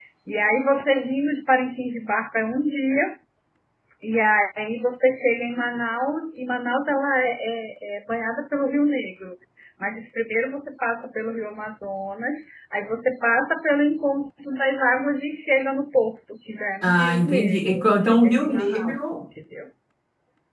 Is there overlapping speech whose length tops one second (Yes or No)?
Yes